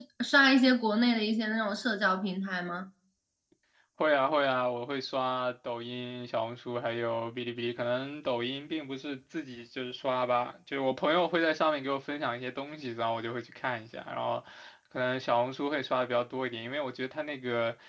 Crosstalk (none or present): none